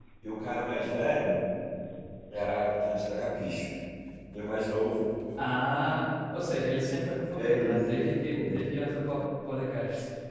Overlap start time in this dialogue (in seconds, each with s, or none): 7.4 s